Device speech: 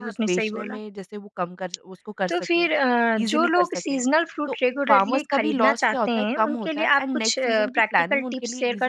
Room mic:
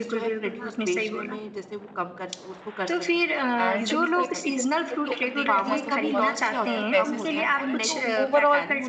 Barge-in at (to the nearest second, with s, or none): 4 s